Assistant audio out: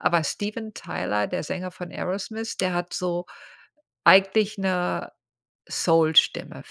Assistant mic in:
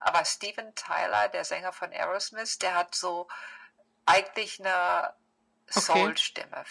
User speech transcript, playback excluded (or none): Okay.